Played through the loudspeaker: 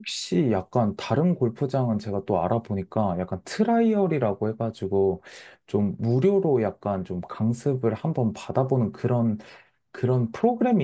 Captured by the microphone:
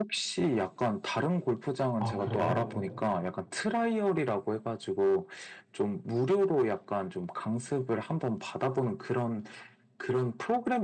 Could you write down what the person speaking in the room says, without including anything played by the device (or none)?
아, 그래요?